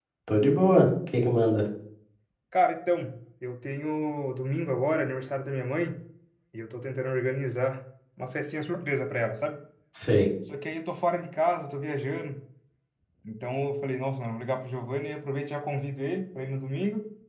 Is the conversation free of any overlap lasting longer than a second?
Yes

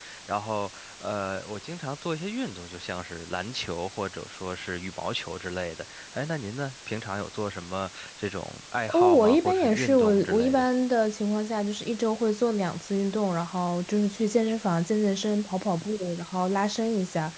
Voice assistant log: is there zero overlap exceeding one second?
No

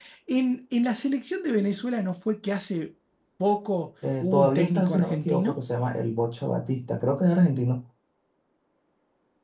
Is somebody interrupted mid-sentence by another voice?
Yes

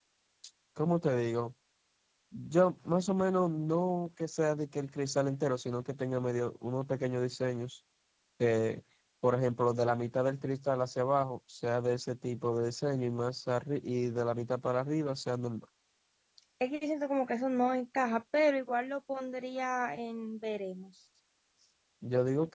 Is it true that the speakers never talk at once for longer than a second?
Yes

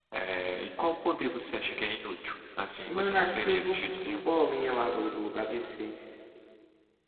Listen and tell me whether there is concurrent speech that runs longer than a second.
Yes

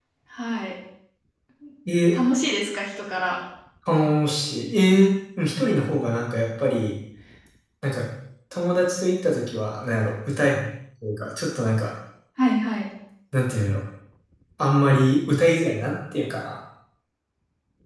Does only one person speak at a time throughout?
Yes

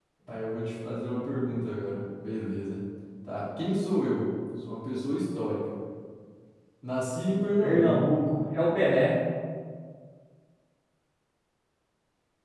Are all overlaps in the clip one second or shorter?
Yes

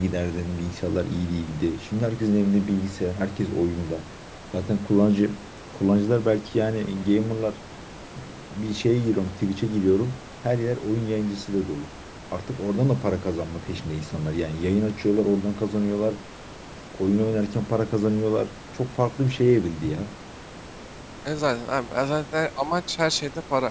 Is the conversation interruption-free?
Yes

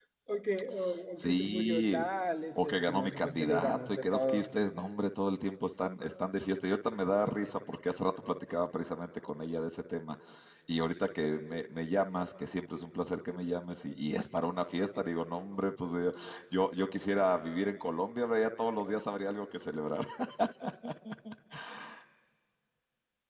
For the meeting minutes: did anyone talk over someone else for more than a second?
Yes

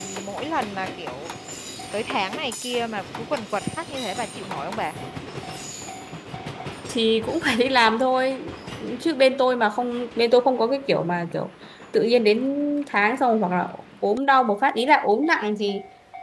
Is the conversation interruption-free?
Yes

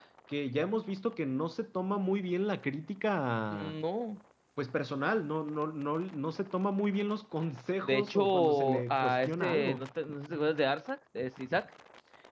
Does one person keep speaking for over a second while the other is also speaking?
Yes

